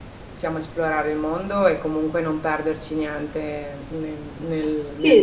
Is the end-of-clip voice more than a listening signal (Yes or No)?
Yes